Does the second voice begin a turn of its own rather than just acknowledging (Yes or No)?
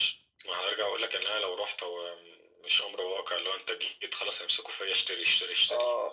Yes